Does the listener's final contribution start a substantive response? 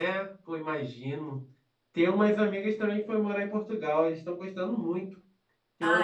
No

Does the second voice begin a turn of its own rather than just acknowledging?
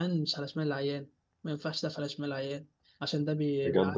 No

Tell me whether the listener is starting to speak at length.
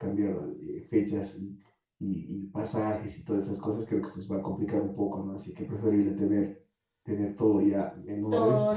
Yes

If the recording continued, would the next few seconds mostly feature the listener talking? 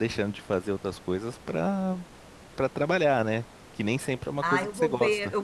Yes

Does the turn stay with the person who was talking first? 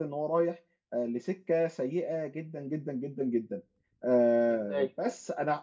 Yes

